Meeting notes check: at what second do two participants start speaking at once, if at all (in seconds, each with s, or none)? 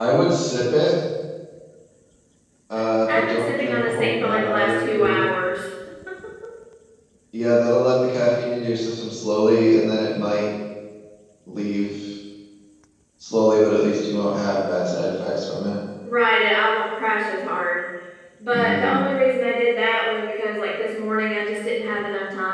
3.2 s